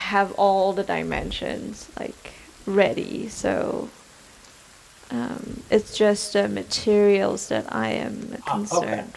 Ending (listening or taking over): taking over